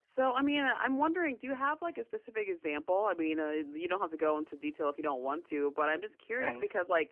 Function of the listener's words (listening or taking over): listening